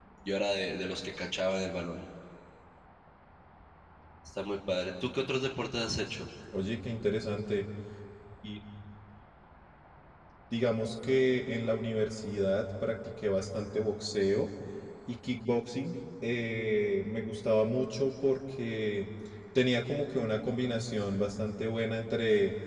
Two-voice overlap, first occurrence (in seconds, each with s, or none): none